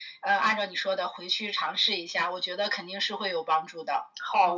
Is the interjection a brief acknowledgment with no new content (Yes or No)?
No